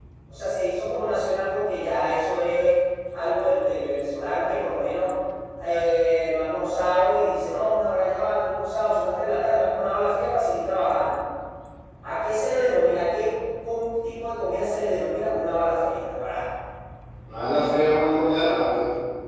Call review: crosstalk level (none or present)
none